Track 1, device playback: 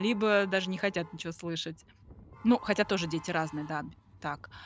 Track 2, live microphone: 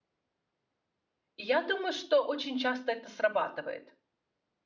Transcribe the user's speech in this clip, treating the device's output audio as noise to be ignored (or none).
И я думаю, что очень часто это срабатывает.